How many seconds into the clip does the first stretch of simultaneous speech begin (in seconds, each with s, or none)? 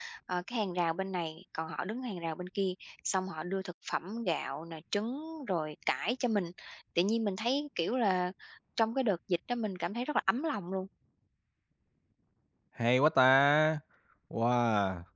none